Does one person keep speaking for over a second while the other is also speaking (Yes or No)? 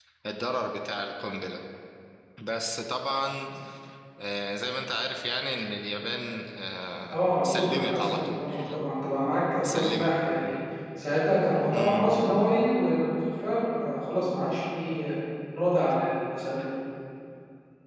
Yes